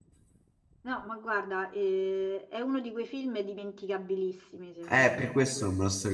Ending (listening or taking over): taking over